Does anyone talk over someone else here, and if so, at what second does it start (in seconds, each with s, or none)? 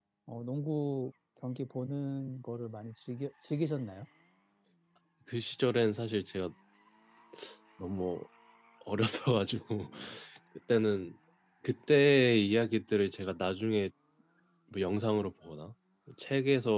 none